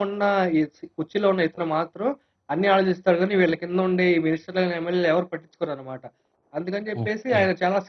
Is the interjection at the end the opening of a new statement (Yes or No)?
No